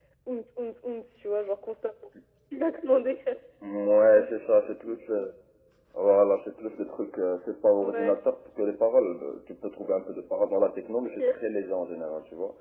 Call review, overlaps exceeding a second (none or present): none